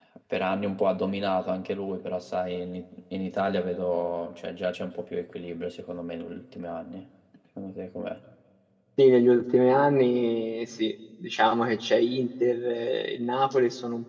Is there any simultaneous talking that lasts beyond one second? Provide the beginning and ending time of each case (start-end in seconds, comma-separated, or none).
none